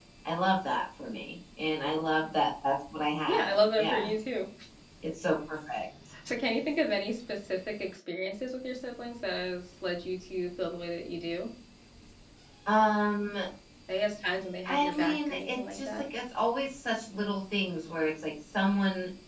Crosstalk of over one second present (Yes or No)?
Yes